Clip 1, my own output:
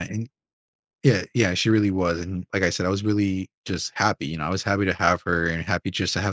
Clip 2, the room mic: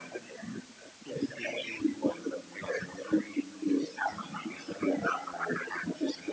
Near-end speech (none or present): none